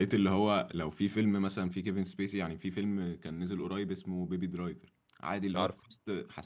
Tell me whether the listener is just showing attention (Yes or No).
Yes